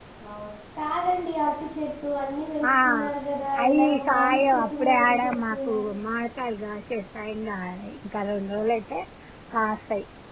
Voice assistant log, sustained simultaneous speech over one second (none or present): present